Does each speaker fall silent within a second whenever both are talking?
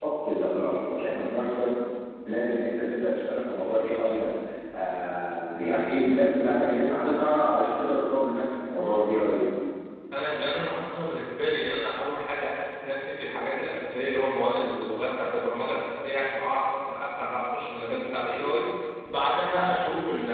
Yes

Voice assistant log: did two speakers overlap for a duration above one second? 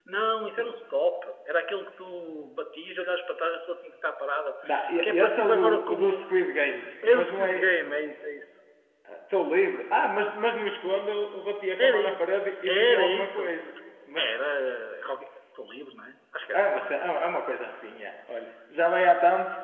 Yes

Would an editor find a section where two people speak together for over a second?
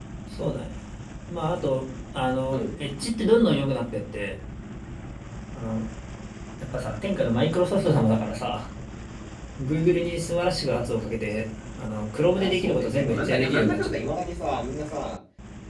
Yes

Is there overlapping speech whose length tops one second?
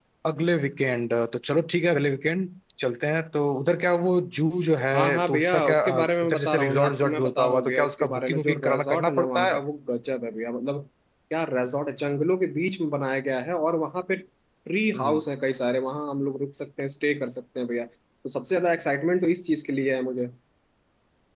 Yes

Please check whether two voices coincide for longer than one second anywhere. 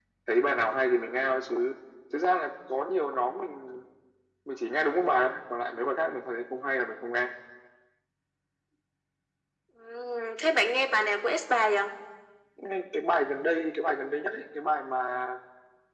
No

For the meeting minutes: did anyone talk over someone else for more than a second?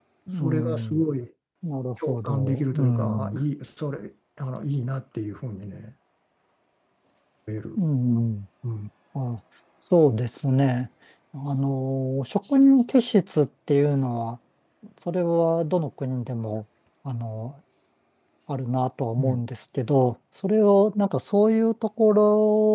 Yes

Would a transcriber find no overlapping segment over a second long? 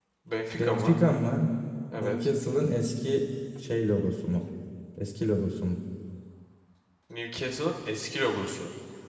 Yes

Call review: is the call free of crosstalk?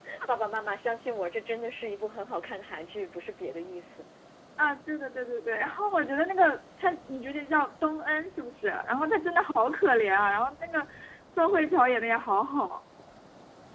Yes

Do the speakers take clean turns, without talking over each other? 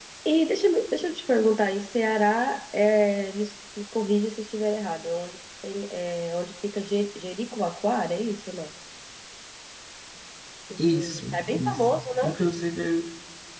No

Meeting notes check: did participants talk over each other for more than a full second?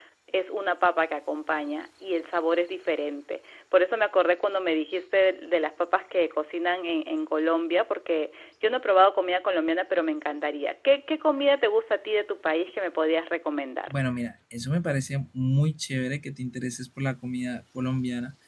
No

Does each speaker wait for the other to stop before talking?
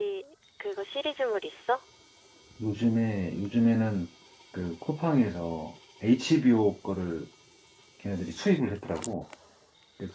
Yes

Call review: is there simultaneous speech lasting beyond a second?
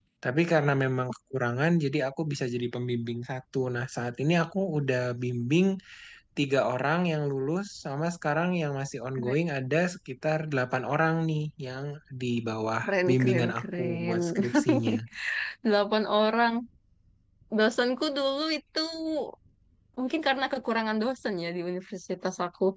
Yes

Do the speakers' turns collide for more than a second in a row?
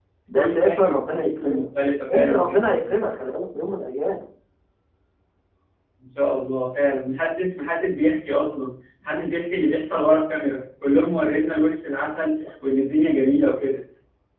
Yes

